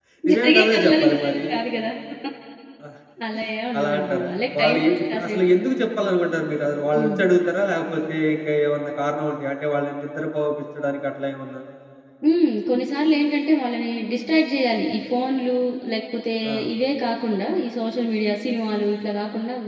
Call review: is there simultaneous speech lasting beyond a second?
Yes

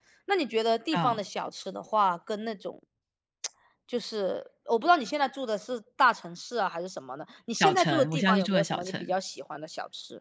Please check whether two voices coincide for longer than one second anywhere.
Yes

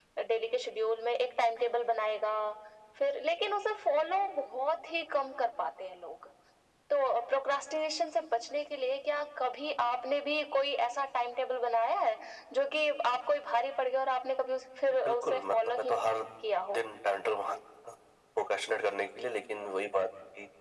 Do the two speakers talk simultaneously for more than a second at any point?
Yes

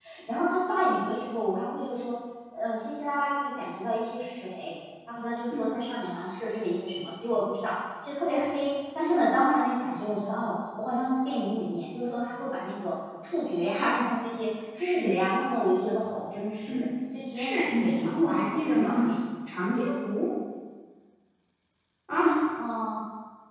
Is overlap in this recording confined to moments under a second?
No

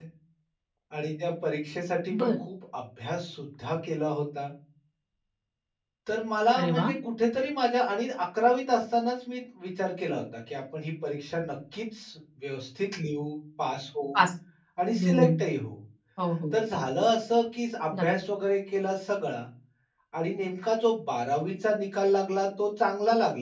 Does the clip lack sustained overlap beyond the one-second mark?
Yes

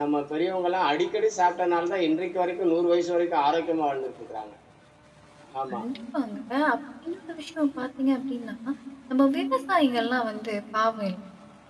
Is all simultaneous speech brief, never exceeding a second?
Yes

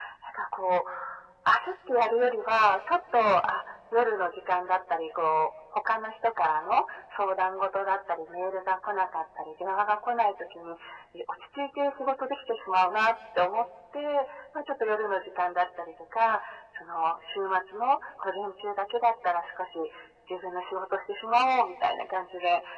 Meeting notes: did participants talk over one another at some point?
No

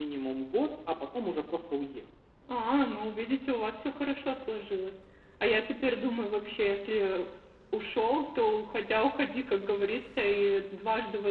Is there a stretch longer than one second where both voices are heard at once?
No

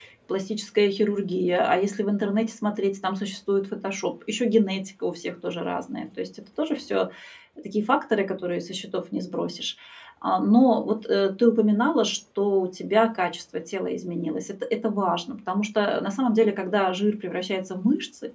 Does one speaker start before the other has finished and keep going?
No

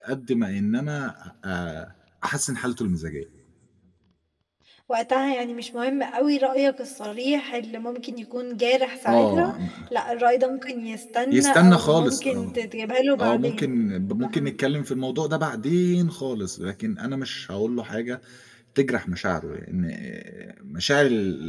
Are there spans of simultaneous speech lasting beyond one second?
Yes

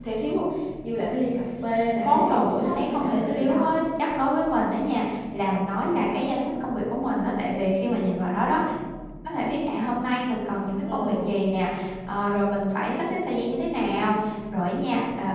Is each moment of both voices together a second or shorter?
No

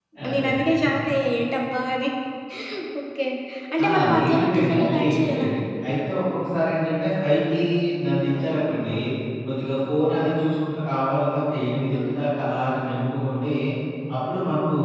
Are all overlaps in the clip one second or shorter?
No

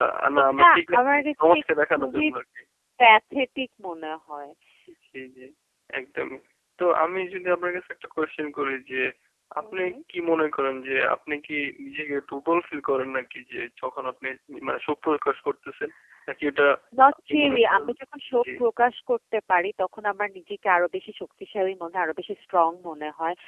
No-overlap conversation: No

